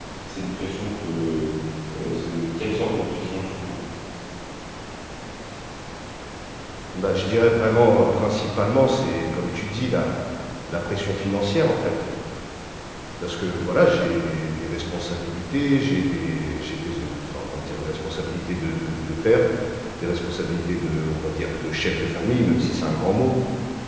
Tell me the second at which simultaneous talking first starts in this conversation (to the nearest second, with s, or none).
none